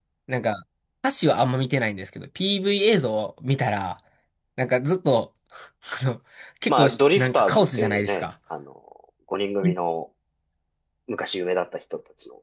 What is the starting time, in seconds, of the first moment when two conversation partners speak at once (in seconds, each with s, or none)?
6.7 s